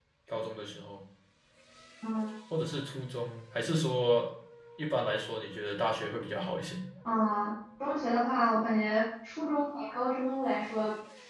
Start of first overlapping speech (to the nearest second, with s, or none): none